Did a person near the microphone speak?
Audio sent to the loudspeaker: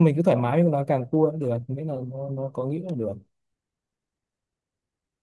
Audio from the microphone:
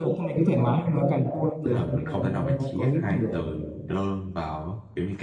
Yes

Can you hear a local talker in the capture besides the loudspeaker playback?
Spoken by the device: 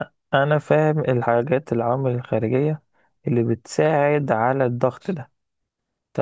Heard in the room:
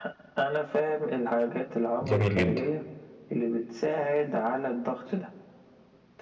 Yes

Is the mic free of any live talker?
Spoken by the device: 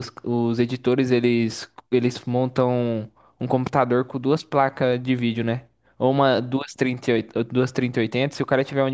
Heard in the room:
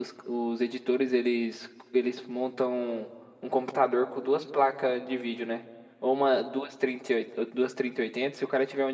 Yes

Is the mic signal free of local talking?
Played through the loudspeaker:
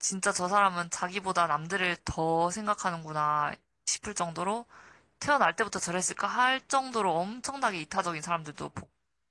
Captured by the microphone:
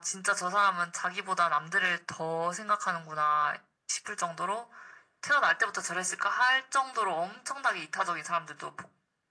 Yes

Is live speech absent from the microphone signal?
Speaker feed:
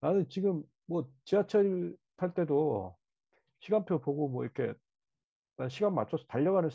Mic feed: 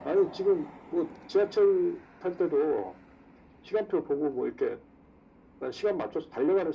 Yes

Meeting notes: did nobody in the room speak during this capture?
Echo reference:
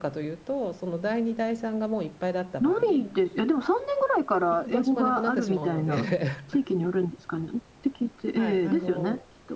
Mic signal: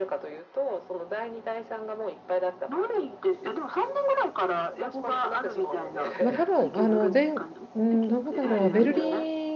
No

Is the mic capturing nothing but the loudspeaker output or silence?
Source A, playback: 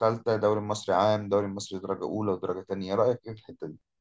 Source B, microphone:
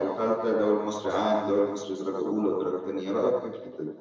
Yes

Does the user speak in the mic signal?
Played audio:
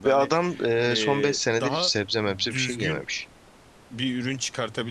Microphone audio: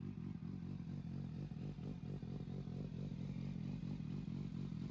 No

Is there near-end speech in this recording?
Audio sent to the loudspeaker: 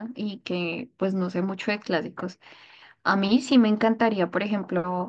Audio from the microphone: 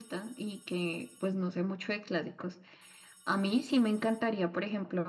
No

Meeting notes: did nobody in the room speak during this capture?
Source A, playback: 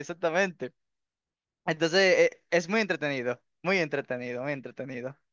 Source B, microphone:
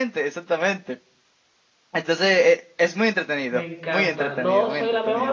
No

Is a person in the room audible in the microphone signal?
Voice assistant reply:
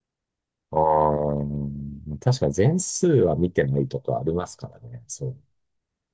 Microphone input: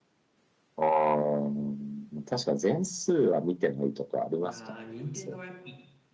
Yes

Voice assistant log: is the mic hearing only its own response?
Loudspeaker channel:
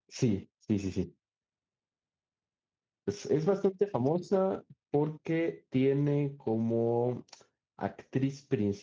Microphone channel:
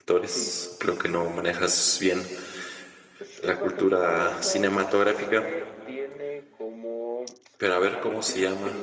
No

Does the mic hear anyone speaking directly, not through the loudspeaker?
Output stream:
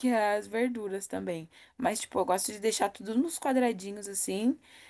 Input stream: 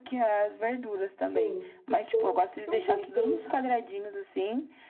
Yes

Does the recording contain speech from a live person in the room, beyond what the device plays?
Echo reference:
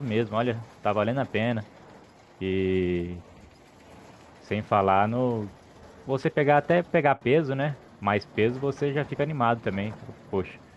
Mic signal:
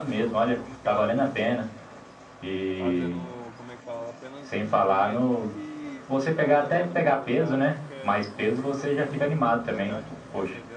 Yes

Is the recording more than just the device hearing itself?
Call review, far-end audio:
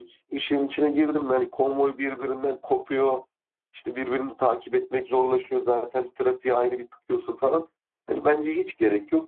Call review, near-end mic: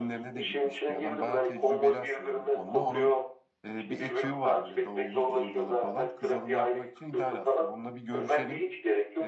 Yes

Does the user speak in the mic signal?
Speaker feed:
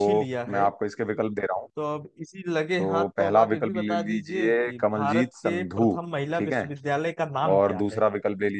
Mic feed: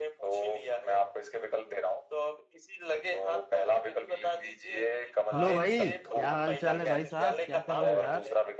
Yes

